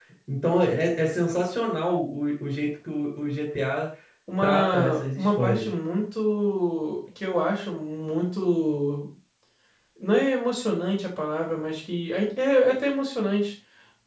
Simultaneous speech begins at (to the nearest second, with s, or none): 4 s